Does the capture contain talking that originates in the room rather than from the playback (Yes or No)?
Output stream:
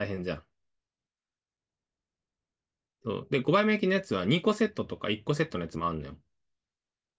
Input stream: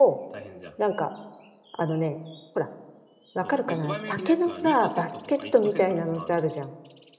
Yes